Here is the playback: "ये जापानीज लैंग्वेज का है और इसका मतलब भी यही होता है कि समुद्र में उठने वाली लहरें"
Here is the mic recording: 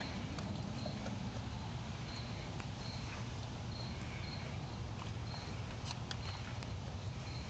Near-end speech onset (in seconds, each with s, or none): none